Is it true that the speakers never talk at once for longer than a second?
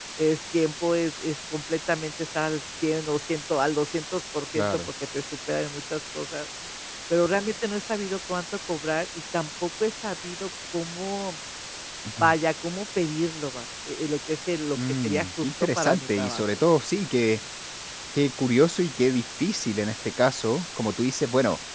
No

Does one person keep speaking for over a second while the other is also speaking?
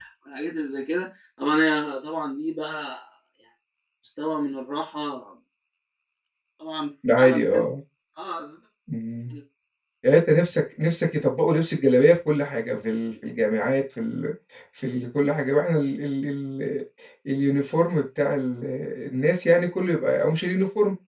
No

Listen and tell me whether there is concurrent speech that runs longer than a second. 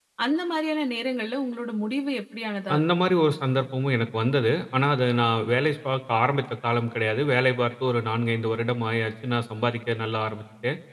No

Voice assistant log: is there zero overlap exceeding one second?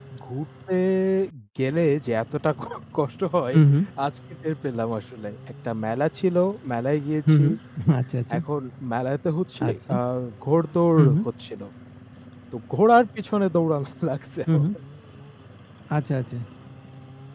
Yes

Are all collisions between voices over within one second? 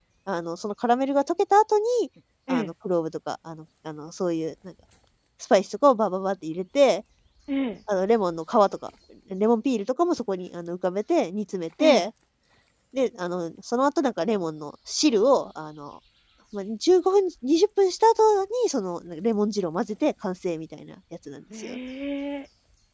Yes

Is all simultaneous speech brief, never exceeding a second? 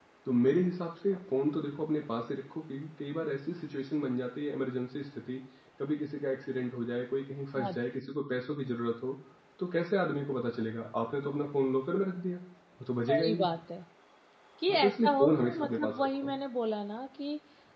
No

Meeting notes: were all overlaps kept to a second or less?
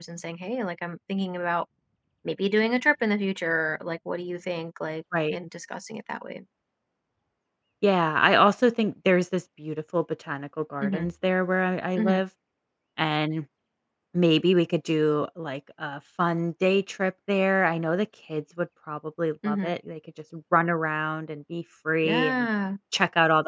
Yes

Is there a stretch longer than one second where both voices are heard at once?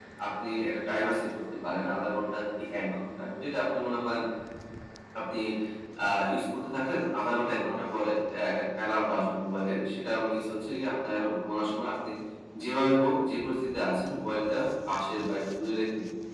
No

